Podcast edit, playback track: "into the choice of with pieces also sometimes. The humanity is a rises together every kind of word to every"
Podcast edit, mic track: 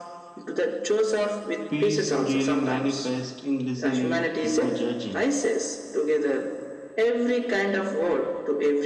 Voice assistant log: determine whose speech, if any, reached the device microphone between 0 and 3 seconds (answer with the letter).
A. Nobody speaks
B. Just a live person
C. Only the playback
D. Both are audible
D